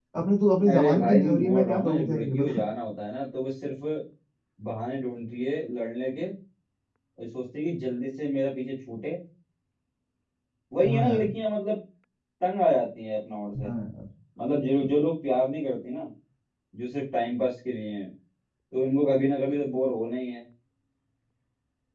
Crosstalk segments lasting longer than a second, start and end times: 0.7-2.6

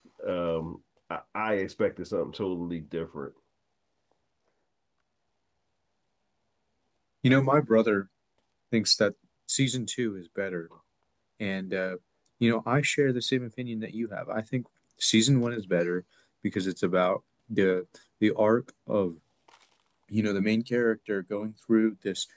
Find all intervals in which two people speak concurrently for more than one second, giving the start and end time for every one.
none

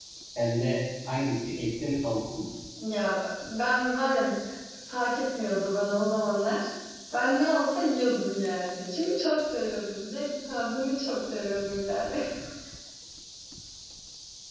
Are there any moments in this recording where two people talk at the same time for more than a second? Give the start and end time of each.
none

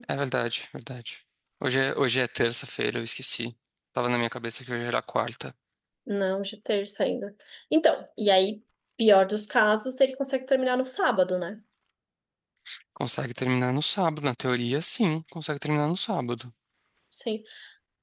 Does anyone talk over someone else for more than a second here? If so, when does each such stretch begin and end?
none

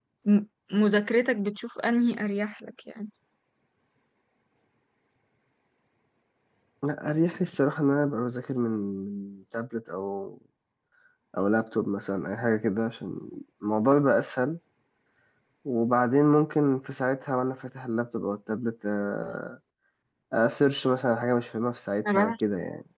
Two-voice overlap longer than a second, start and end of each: none

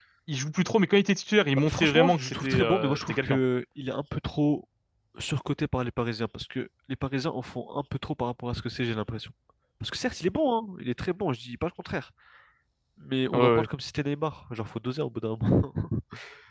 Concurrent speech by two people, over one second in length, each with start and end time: 1.6-3.4

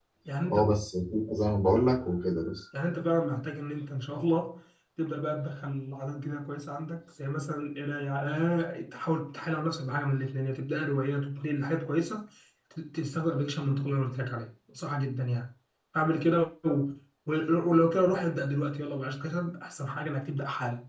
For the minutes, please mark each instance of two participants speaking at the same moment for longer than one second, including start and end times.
none

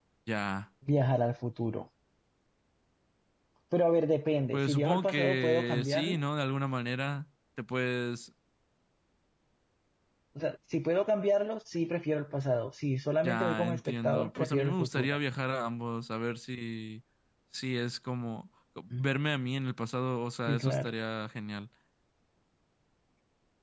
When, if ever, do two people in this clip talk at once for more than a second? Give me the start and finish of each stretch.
4.5-6.2, 13.2-15.2

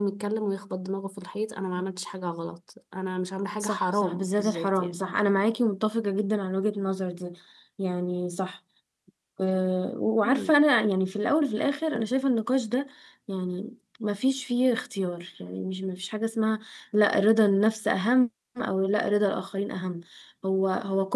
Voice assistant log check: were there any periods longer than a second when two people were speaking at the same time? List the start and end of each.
3.6-5.0

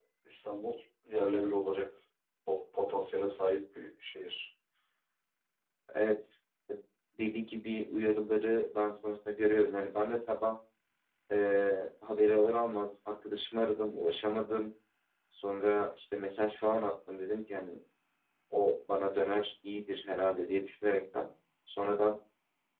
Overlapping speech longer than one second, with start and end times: none

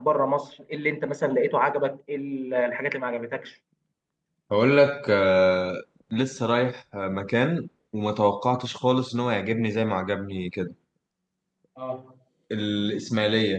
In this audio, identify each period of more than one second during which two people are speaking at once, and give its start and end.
none

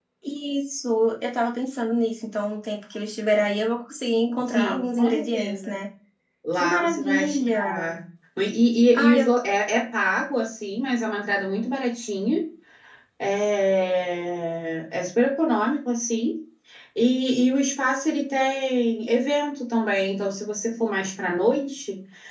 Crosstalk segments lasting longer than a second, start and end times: 4.5-5.8, 6.5-7.9

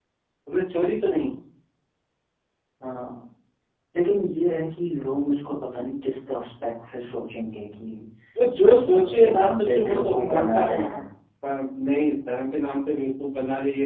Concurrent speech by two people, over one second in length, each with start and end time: 8.6-11.0

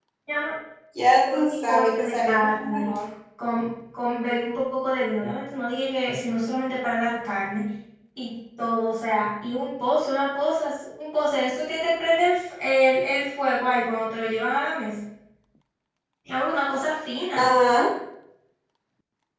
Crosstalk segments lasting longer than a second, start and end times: 1.3-3.0

